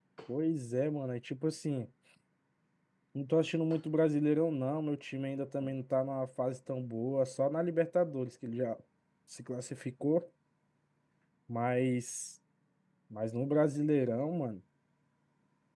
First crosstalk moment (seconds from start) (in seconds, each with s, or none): none